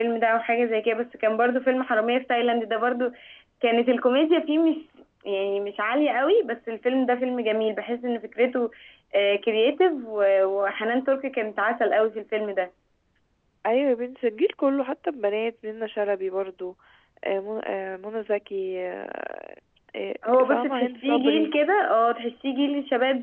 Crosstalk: present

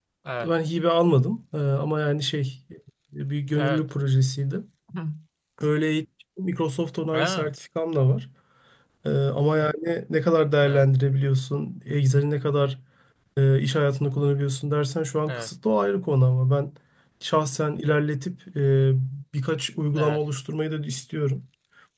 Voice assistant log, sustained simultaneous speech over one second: none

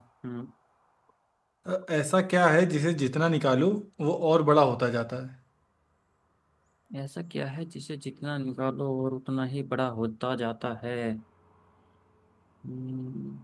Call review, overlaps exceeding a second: none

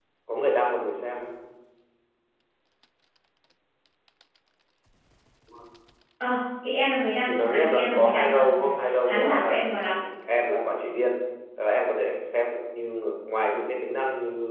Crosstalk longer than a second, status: present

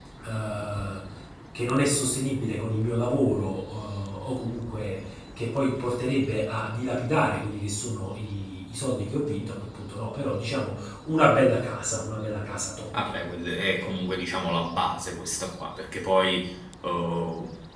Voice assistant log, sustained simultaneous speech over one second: none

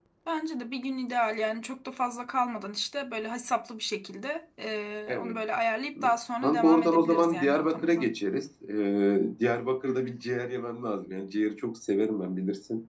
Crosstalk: present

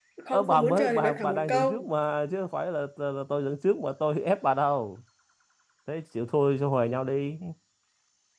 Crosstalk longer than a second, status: present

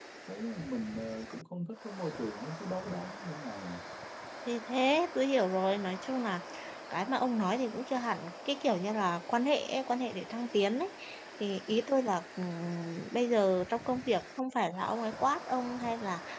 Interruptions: none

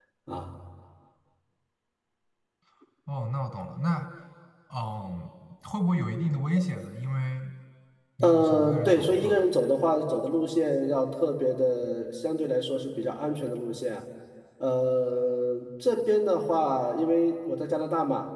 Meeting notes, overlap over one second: present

